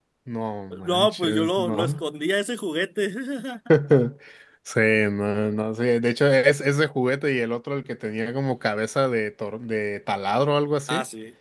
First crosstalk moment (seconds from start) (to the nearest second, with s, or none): 1 s